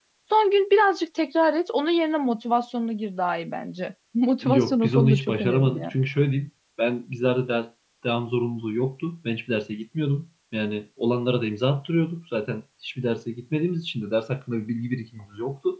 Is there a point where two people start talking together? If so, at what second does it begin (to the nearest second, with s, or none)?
4 s